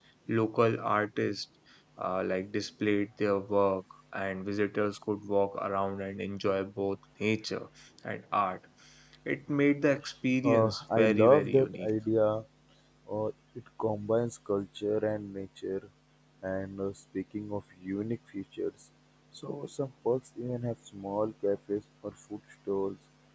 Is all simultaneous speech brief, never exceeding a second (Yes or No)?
No